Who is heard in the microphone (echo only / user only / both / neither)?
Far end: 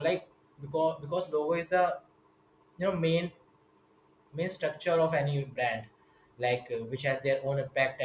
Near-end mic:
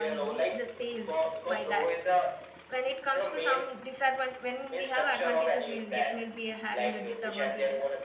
both